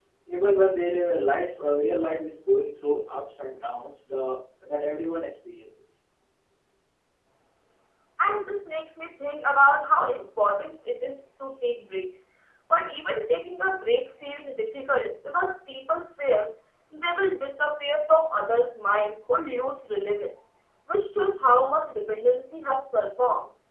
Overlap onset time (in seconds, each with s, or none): none